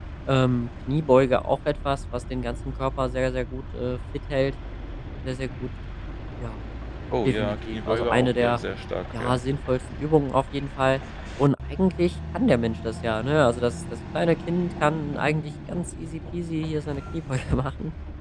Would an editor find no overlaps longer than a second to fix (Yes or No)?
No